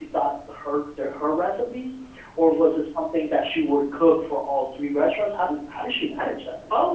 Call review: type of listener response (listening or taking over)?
taking over